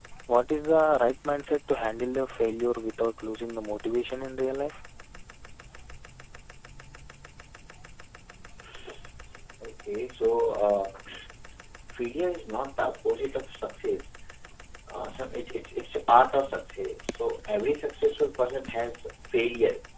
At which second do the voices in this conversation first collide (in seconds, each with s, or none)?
none